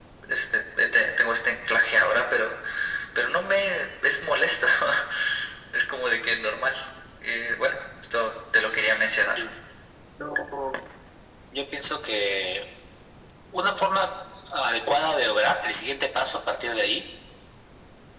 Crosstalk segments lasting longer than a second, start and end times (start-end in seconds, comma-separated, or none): none